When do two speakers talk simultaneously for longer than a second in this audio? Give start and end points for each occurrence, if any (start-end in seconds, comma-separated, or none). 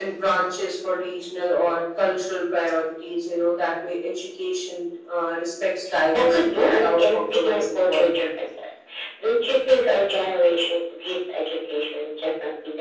6.1-8.1